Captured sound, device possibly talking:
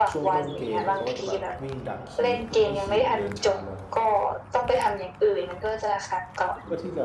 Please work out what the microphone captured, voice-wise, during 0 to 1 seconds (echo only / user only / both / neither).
both